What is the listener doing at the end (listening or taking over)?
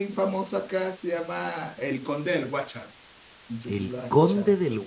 taking over